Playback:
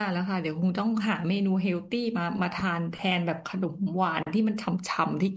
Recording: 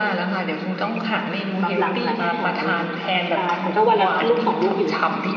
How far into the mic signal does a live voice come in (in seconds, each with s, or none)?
1.6 s